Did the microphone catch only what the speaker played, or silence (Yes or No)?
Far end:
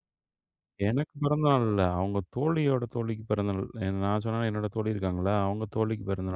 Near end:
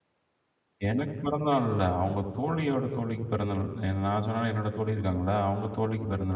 Yes